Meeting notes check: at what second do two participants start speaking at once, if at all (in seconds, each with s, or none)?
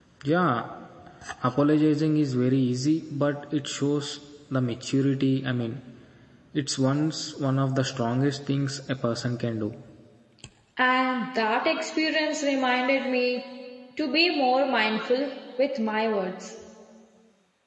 none